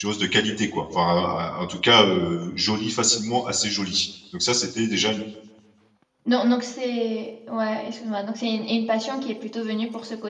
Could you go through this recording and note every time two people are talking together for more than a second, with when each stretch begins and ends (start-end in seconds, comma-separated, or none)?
none